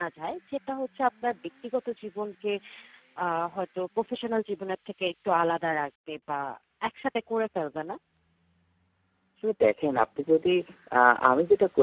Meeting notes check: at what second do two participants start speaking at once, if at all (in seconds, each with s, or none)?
none